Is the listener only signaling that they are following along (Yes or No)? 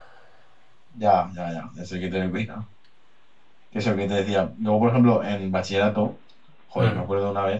Yes